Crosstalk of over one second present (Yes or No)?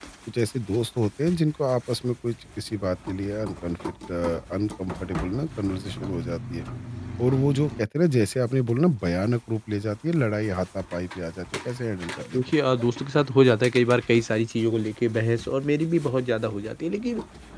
No